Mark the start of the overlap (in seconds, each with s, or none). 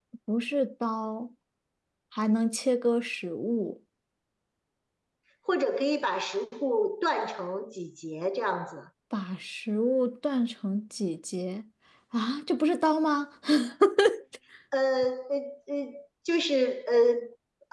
none